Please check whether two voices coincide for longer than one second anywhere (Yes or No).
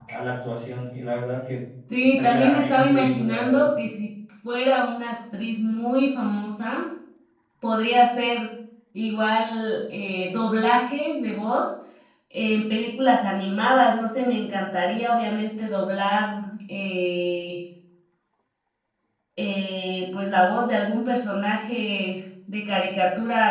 Yes